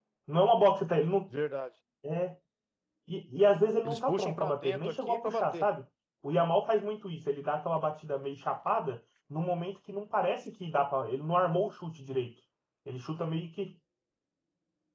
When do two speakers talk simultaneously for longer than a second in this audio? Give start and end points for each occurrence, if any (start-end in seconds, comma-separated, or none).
3.8-5.7